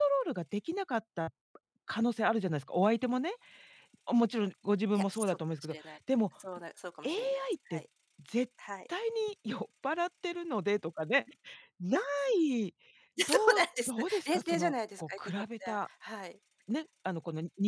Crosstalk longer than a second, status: present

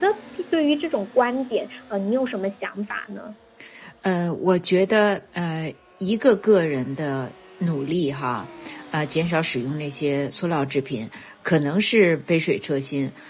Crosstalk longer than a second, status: none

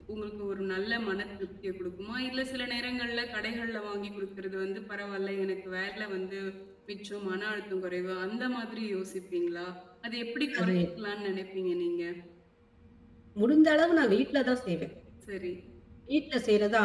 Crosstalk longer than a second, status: none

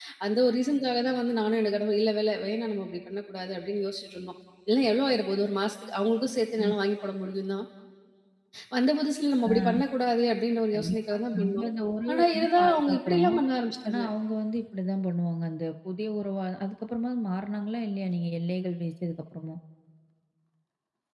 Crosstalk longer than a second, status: present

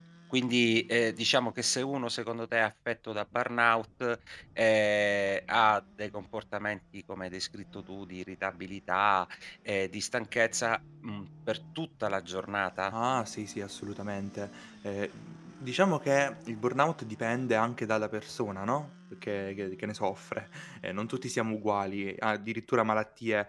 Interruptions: none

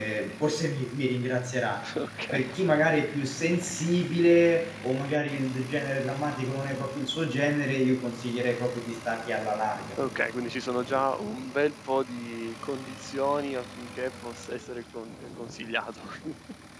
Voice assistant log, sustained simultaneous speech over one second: none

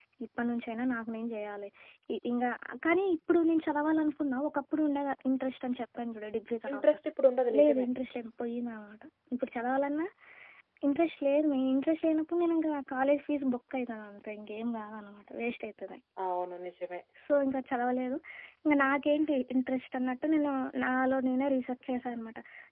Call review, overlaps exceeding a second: none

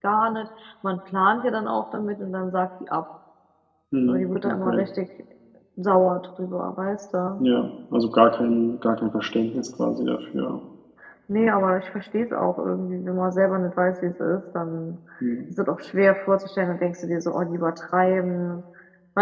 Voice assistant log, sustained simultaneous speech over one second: none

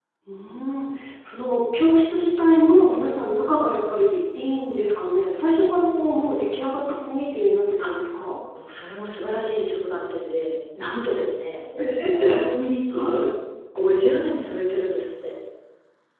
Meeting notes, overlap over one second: none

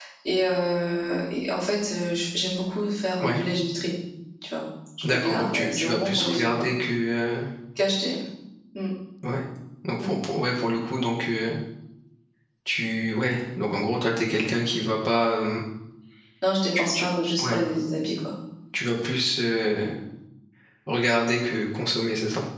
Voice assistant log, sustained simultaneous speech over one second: present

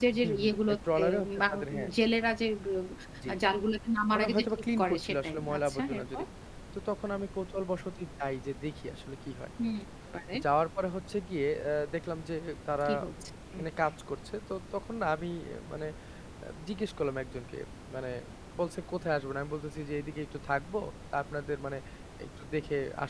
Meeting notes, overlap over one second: present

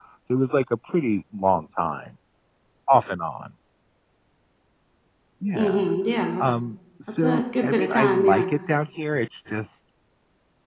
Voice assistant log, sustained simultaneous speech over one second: present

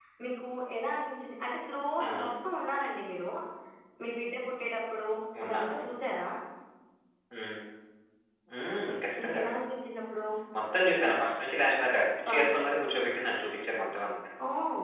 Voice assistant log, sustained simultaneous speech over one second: none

